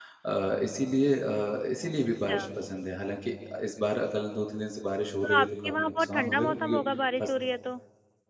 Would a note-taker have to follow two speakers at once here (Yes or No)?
Yes